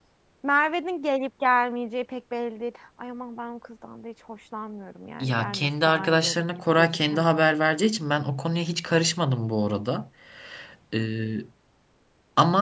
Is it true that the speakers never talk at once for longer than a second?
No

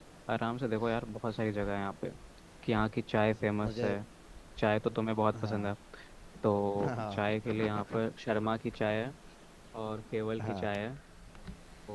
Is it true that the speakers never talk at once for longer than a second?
No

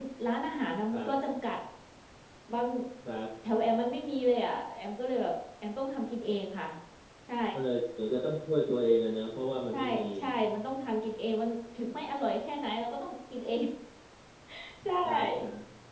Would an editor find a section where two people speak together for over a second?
No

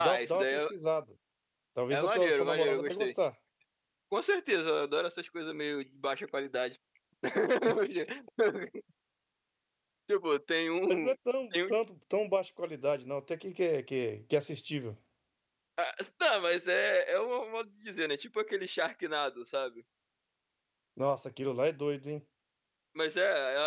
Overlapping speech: Yes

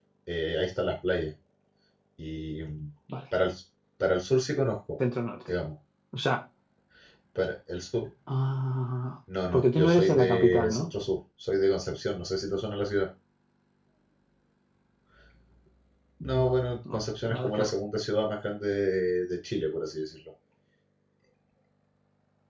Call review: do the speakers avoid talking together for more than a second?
No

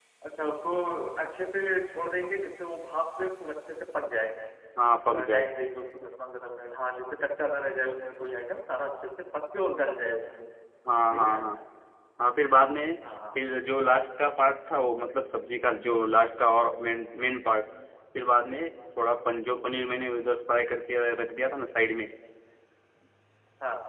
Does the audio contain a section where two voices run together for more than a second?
No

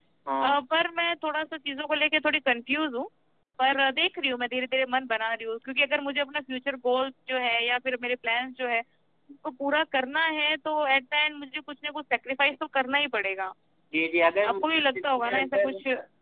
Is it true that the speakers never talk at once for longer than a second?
No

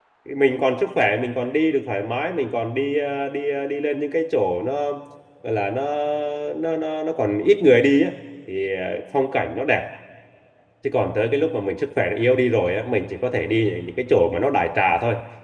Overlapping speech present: No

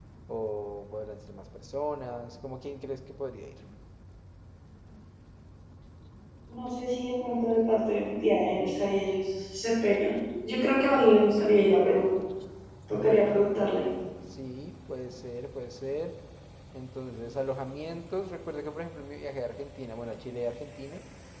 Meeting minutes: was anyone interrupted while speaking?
No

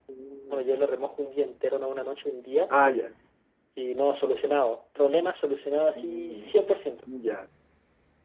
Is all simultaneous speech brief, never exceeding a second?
Yes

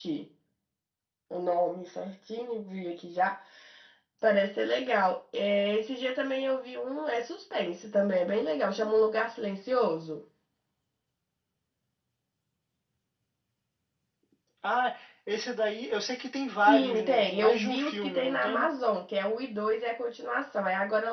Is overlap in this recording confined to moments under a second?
No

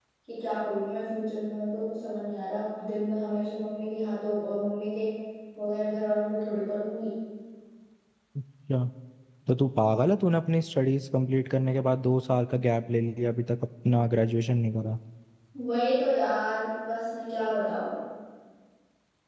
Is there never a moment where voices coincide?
Yes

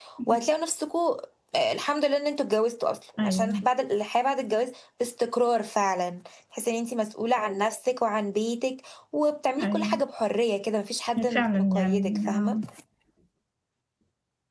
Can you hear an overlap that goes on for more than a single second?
Yes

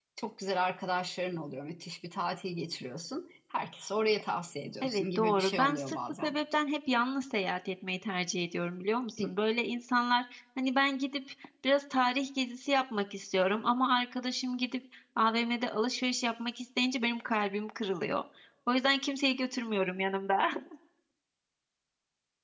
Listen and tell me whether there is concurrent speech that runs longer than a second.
Yes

